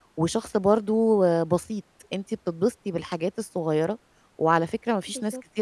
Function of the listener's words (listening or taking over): listening